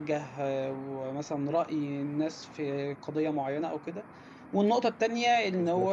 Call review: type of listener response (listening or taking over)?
listening